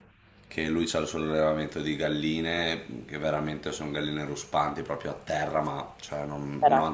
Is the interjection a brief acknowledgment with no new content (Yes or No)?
Yes